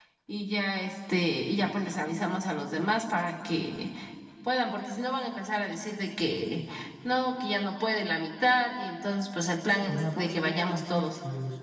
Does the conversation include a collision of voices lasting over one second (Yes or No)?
Yes